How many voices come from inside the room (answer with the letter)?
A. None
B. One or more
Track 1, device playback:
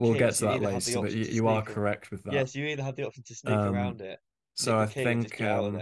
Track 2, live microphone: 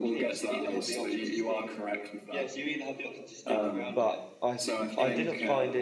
B